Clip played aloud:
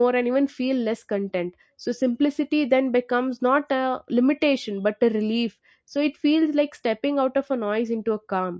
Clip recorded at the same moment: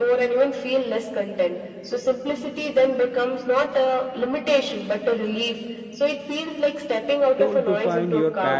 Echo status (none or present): present